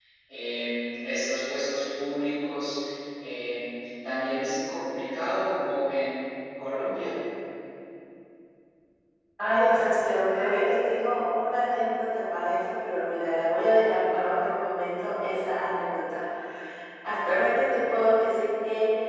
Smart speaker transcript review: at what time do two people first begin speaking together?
none

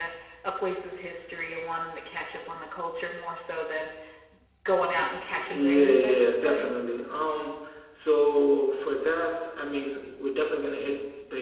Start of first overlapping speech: 5.0 s

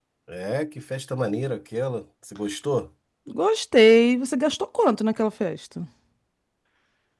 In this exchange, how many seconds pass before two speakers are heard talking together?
none

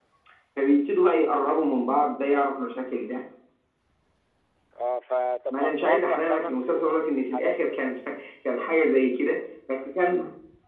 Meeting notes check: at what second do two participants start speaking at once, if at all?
5.5 s

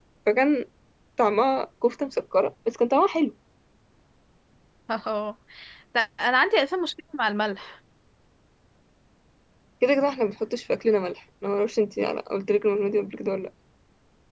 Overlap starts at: none

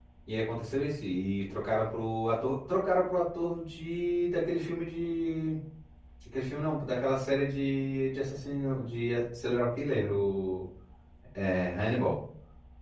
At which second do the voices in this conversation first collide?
none

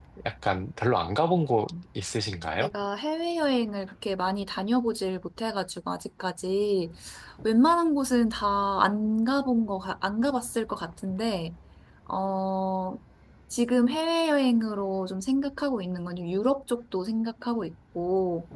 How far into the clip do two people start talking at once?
none

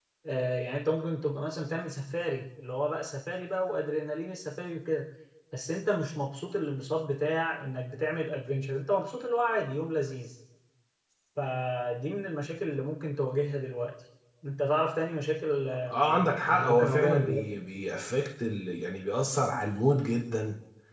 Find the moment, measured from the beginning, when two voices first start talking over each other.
15.9 s

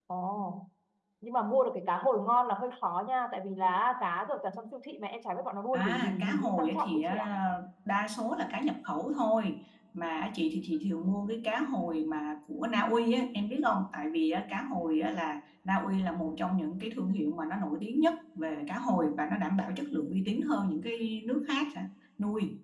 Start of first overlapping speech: 5.7 s

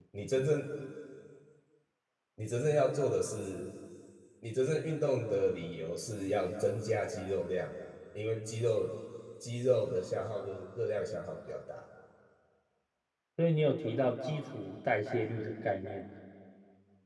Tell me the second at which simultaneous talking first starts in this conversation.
none

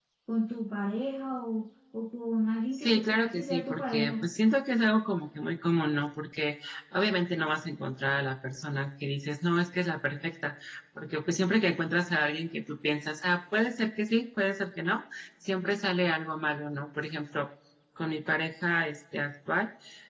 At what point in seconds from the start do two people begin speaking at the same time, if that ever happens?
2.8 s

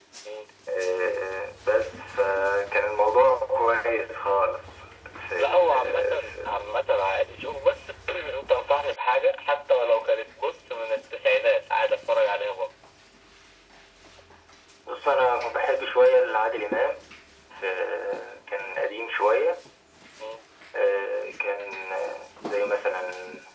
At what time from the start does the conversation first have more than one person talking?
5.4 s

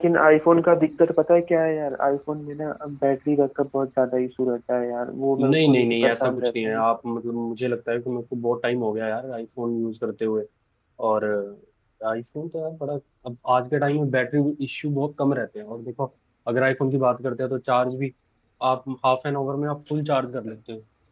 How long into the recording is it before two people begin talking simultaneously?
5.4 s

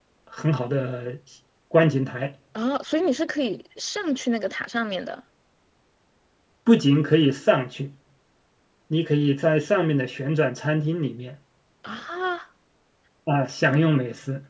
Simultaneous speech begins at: none

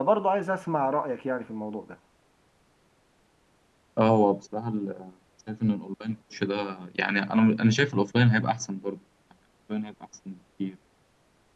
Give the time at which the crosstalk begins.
none

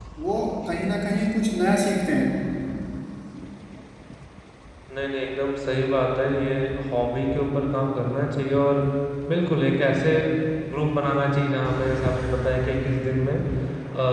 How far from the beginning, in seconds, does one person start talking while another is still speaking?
none

